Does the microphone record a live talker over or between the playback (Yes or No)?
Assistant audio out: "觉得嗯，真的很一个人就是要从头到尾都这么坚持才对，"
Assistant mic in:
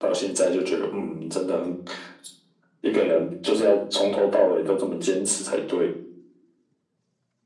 No